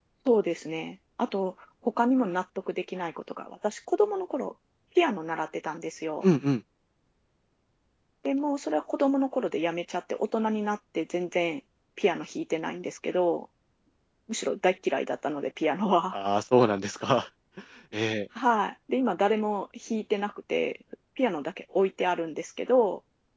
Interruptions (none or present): none